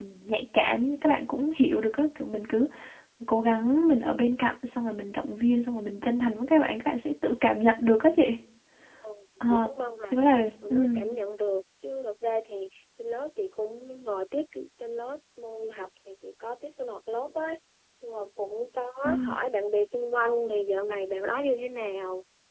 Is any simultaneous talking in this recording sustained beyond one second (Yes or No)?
No